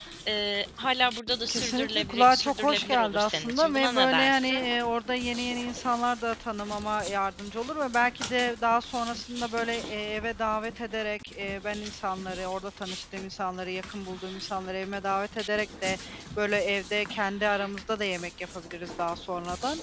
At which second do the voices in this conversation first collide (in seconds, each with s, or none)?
1.5 s